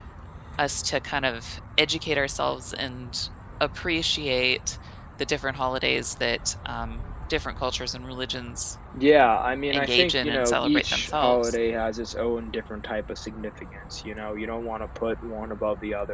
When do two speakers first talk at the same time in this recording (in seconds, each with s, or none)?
9.7 s